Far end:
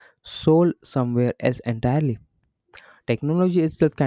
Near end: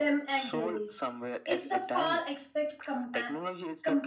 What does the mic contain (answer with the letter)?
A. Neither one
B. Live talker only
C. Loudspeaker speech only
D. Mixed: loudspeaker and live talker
D